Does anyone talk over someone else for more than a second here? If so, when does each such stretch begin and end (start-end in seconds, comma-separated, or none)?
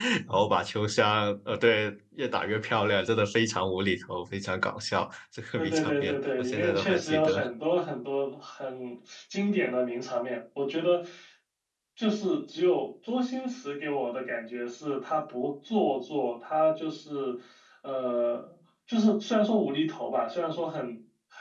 5.6-7.4